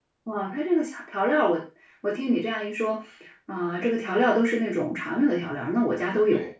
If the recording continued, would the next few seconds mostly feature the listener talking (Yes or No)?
Yes